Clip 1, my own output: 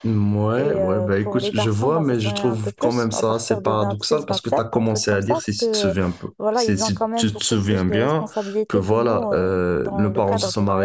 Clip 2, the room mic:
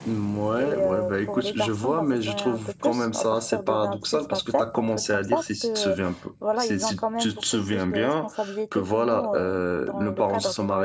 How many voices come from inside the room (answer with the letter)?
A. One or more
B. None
B